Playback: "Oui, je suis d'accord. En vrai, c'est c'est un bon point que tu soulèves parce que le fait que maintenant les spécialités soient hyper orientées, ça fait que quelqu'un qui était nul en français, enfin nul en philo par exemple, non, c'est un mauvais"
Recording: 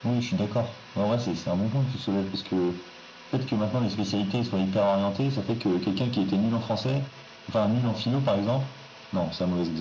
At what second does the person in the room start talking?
none

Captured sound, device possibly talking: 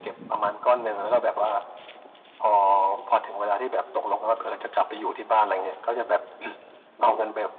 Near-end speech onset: none

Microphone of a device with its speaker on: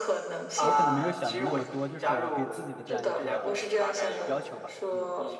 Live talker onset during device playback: 0.6 s

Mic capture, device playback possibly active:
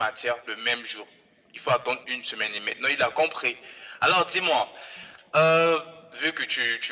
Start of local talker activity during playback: none

